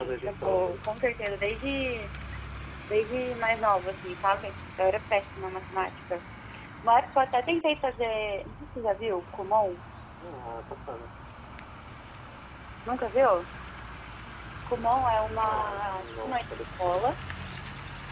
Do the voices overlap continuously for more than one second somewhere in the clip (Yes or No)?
Yes